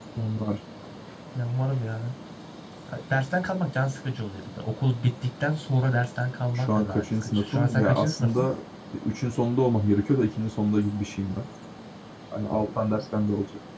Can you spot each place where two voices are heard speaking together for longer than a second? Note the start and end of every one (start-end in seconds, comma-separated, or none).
6.5-8.5